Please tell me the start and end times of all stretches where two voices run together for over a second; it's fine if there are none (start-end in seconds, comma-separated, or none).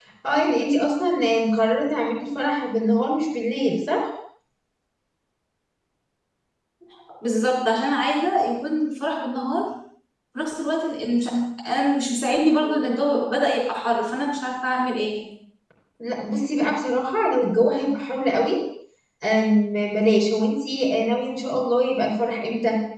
none